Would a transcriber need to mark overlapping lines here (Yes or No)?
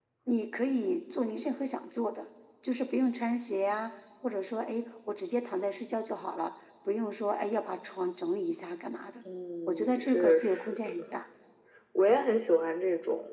Yes